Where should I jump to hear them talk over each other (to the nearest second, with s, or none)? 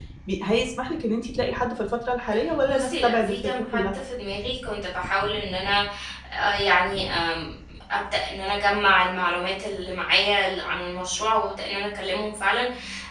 3 s